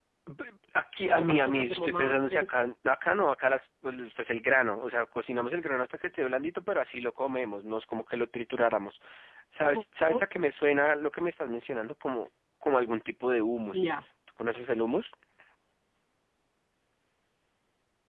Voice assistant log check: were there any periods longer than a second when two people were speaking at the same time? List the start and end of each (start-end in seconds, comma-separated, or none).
1.1-2.7